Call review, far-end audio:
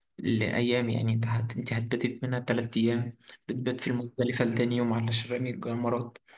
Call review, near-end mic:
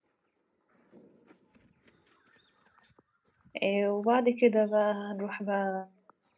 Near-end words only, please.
آه وبعد كده بقى هنروح بقى

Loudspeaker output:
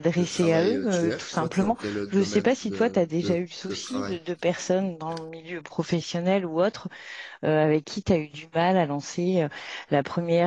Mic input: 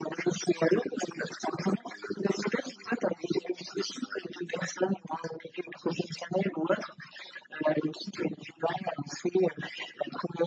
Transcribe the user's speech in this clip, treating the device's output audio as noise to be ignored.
none

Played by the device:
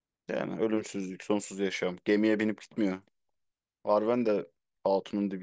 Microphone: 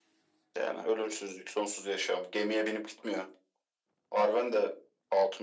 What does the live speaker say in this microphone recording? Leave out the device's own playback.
none

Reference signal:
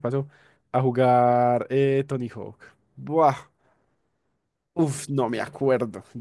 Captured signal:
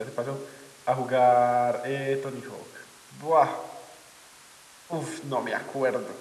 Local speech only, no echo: none

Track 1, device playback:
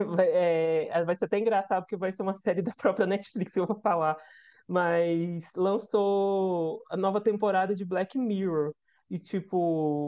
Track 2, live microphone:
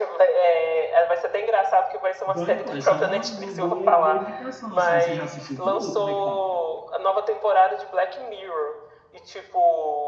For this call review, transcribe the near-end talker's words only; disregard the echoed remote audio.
Então, pô, essa é uma, uma boa, boa indicação, assim. Você já assistiu tudo? Como é que tá?

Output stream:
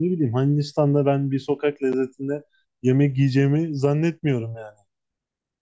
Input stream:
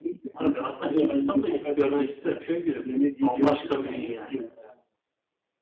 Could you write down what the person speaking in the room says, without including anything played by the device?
Abi aslında Hindistan'ı da gidip görmek isterim. Çünkü bambaşka bir dünya.

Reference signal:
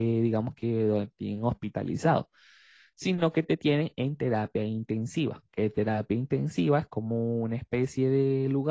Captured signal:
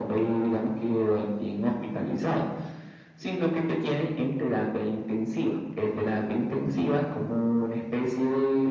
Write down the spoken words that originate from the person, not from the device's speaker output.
none

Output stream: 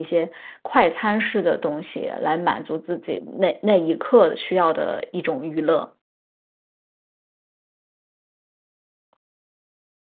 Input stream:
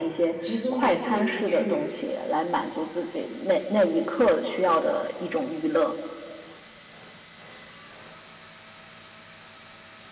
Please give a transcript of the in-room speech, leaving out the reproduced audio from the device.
集中你的注意力去

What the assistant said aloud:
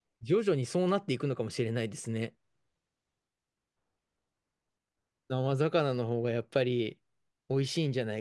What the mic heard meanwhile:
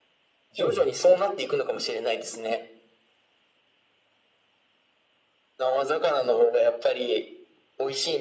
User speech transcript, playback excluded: ほうほう。

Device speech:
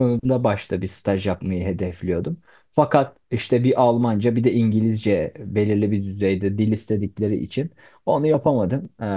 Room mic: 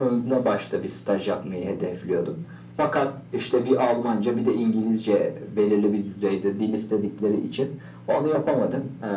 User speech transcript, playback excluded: none

